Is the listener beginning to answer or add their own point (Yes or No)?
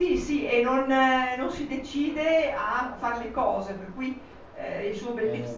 No